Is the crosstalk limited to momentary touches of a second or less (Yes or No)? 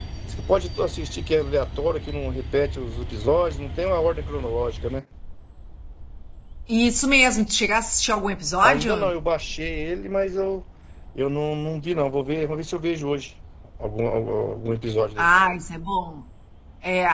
Yes